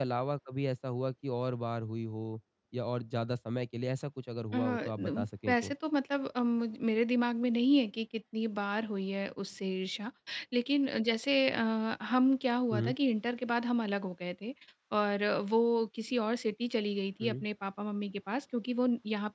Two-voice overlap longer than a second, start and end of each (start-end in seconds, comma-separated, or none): 4.5-5.7